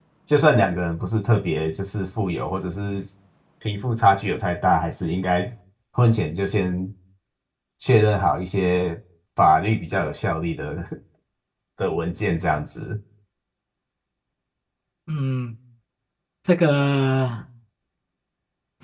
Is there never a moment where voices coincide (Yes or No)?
Yes